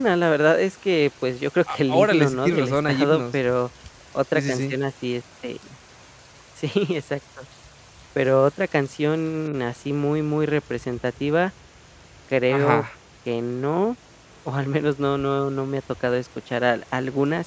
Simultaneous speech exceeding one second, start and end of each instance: 1.9-3.4

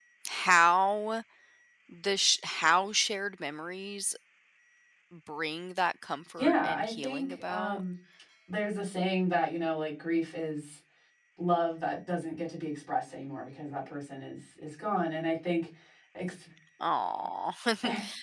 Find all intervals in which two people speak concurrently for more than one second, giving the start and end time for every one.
6.4-7.8

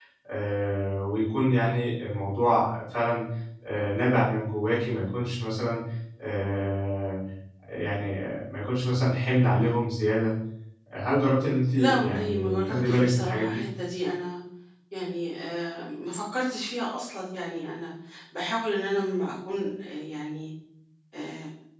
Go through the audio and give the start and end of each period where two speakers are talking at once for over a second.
11.8-13.6

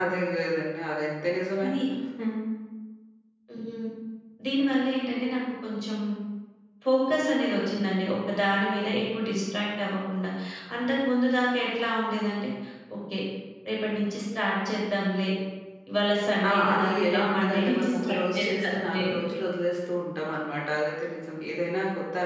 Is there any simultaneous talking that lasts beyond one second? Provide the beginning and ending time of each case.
16.5-19.0

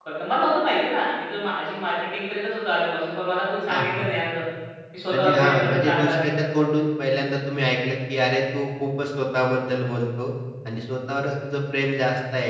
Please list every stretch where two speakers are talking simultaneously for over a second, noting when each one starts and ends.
5.1-6.4

